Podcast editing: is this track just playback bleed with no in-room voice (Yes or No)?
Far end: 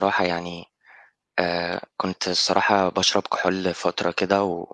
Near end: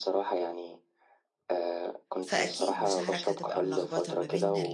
No